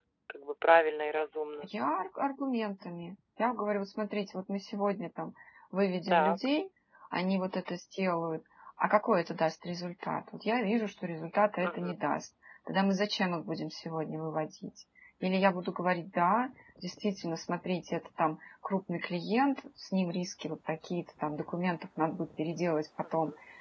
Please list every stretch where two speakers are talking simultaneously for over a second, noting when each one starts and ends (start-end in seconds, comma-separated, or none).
none